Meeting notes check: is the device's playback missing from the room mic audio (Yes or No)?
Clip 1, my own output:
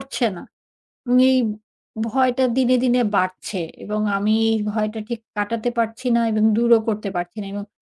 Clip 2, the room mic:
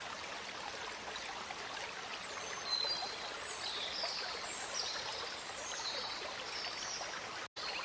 Yes